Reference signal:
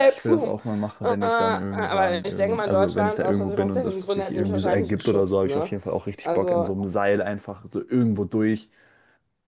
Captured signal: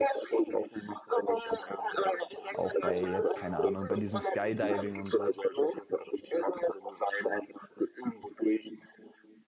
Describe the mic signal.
both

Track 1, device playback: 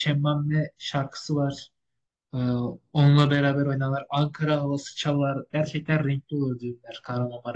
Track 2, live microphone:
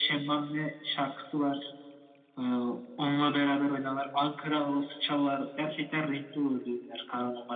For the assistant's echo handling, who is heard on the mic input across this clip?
echo only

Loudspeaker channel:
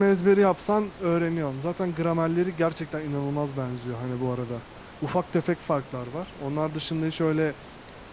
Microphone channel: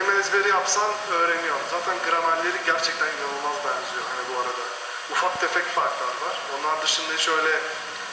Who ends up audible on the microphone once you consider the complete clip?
echo only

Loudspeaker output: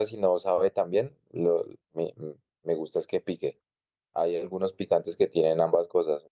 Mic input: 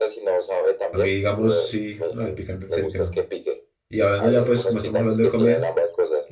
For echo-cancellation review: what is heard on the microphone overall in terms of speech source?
both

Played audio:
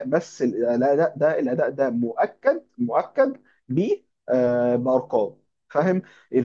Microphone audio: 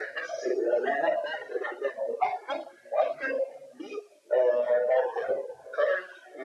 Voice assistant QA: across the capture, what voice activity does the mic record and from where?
echo only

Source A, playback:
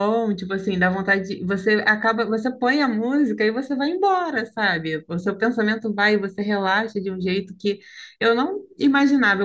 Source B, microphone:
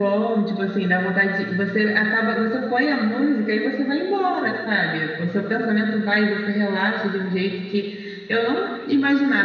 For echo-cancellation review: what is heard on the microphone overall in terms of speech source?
echo only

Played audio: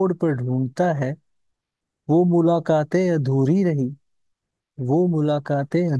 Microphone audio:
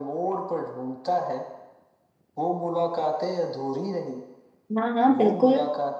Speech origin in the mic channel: both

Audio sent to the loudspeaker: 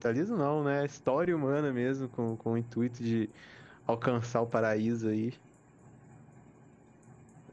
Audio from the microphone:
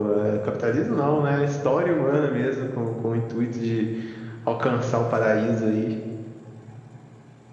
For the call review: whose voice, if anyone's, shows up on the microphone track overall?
echo only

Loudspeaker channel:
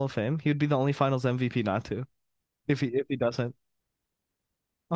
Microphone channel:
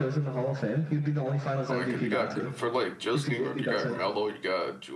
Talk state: both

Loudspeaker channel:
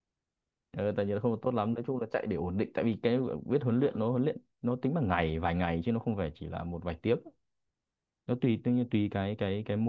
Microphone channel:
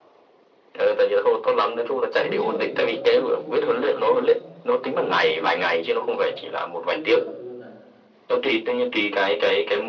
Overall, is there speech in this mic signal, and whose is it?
both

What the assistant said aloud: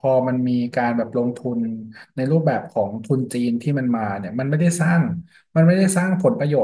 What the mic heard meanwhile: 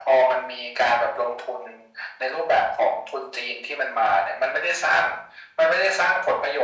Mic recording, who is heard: echo only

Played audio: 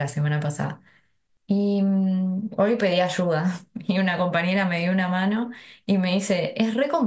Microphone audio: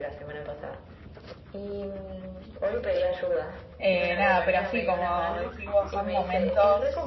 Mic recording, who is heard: both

